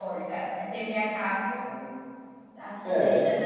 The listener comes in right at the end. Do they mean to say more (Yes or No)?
No